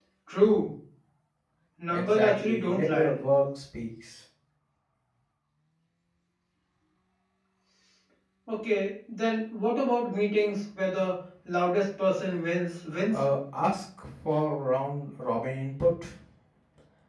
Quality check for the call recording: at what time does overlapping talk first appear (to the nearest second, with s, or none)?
2 s